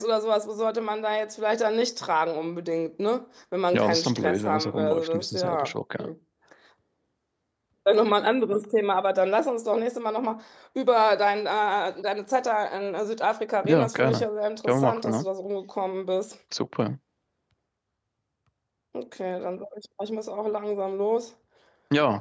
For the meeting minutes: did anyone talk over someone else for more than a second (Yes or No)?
Yes